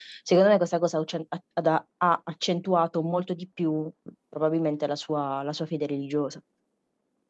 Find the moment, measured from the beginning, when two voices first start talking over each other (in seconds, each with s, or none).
none